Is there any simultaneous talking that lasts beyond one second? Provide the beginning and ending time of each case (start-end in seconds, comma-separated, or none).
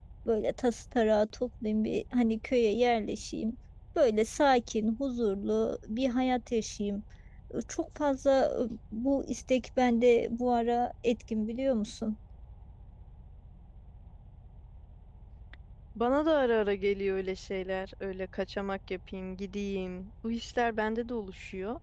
none